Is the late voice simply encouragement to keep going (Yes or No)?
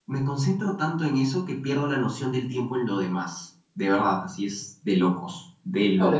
No